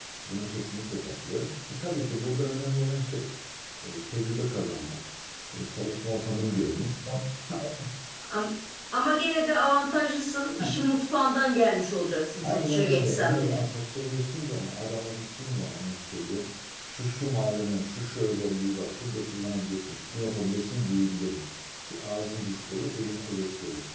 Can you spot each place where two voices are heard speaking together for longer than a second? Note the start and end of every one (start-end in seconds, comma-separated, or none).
12.4-13.6